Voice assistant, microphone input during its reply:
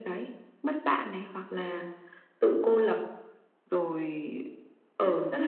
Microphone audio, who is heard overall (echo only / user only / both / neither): echo only